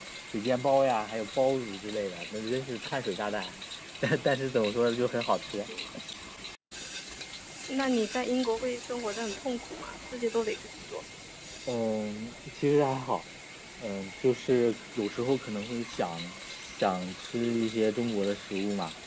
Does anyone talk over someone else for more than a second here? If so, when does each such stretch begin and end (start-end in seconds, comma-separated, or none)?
none